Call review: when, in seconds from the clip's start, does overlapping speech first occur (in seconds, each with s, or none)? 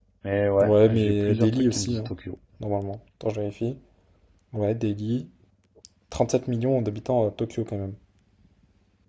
0.6 s